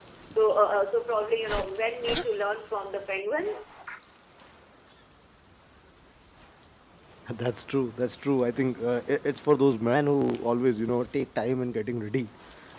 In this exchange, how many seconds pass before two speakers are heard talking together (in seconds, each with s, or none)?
none